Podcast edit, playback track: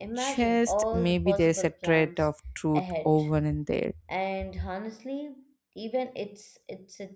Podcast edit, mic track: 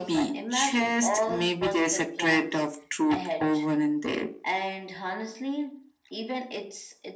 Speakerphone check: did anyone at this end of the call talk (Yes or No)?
No